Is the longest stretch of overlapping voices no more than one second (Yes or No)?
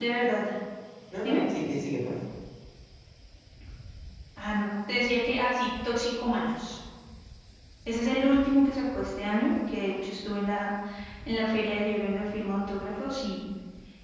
Yes